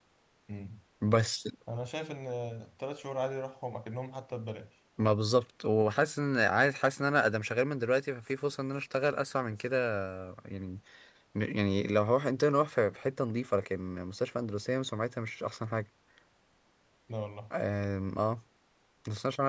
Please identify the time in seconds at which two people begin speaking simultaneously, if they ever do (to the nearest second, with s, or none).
none